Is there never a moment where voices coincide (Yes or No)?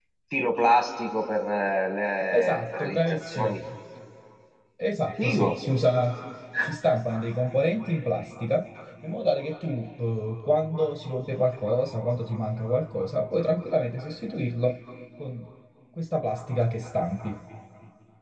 No